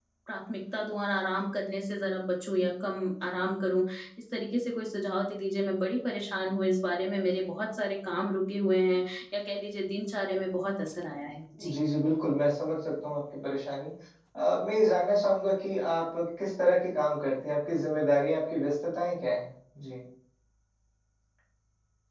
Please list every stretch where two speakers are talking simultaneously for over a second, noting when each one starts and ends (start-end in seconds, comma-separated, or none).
none